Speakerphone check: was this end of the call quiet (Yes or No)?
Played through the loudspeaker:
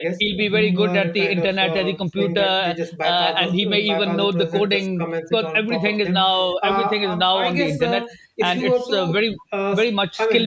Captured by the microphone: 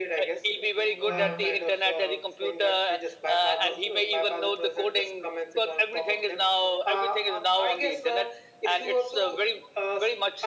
No